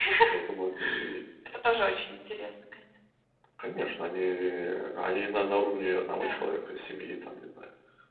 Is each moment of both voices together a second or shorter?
Yes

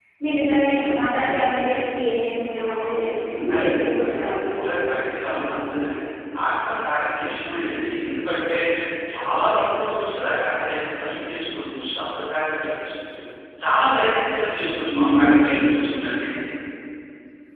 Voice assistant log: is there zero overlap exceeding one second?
No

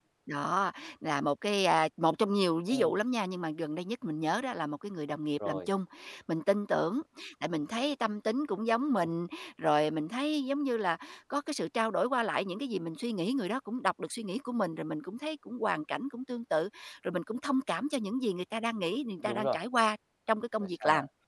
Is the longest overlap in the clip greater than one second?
No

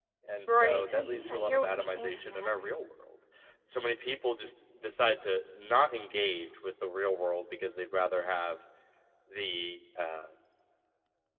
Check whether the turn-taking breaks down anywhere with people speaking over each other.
Yes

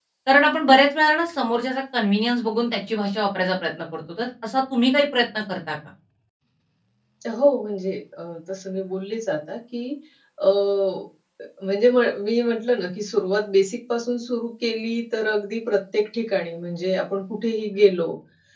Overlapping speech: No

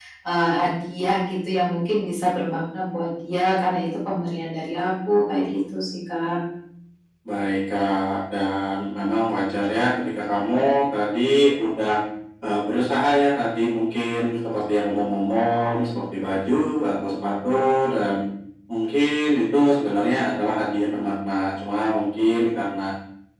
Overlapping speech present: No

